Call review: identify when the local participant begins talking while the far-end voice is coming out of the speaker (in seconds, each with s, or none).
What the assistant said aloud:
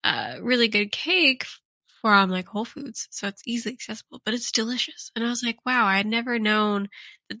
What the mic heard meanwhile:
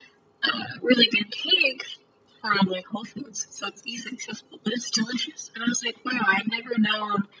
none